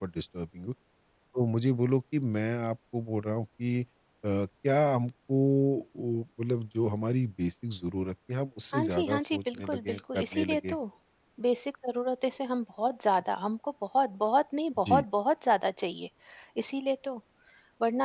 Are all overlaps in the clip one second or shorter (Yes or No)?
No